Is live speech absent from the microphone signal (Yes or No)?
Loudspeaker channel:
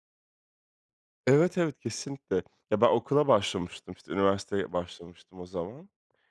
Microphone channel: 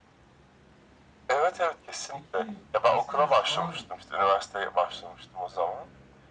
No